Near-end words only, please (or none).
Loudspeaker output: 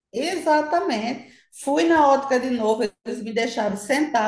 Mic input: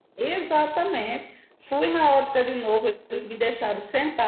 none